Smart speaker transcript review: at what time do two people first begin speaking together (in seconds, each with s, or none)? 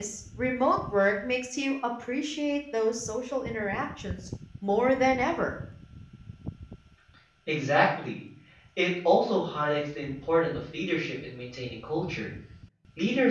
none